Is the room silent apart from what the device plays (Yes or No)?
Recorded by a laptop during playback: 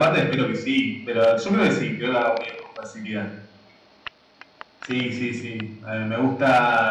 Yes